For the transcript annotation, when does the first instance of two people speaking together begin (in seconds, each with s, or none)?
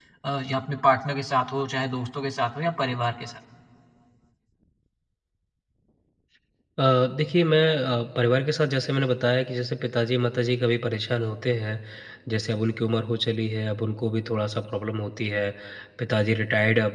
none